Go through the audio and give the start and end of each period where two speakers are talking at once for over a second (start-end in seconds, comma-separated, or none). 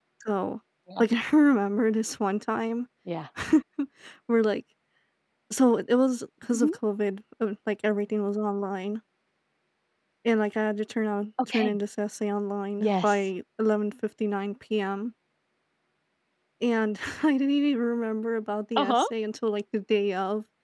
none